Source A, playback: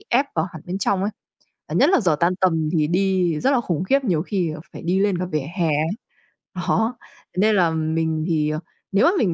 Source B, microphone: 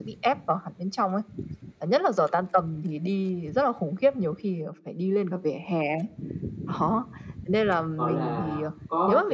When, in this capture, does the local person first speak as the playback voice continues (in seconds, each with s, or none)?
8.0 s